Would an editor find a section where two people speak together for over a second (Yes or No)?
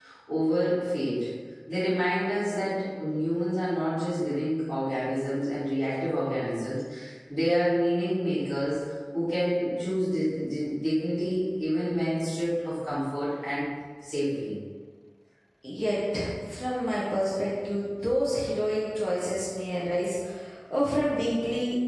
No